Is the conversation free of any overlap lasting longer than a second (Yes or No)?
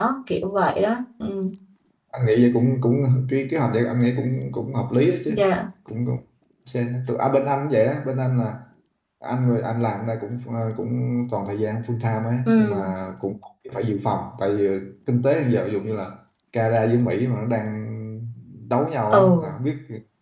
Yes